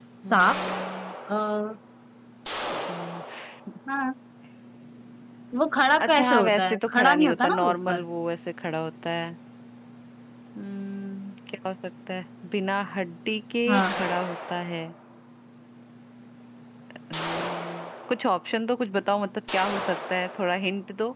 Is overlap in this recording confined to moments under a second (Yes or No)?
No